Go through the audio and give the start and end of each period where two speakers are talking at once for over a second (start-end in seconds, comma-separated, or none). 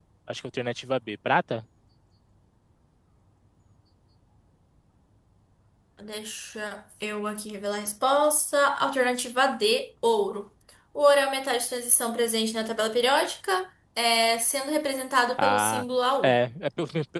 none